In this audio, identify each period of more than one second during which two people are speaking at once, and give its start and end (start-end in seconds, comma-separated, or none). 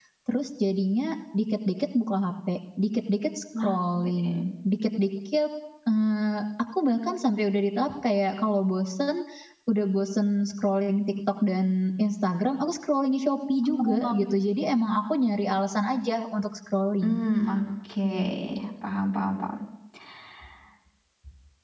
none